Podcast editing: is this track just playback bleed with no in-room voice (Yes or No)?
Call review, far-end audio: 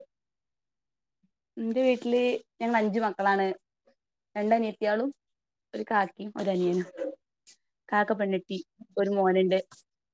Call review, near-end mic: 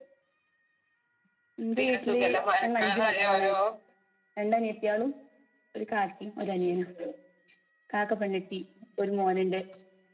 No